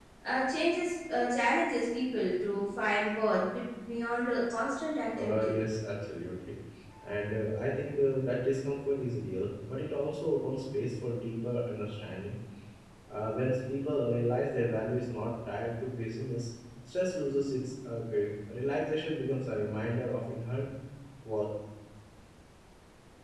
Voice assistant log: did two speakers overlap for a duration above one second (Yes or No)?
No